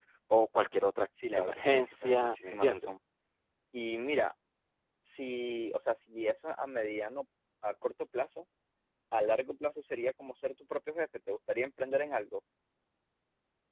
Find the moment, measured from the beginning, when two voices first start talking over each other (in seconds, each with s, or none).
1.4 s